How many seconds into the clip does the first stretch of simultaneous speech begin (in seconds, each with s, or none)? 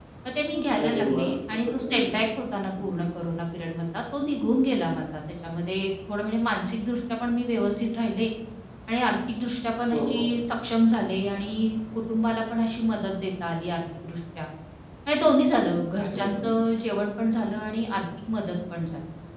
0.8 s